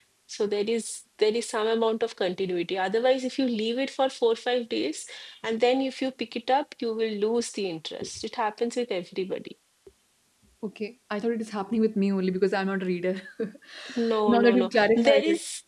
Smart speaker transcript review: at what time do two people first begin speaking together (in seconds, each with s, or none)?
13.8 s